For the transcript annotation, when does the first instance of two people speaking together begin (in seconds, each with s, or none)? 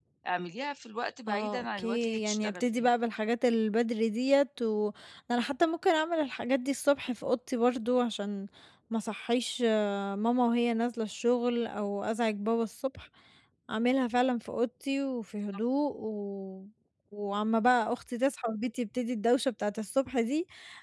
1.3 s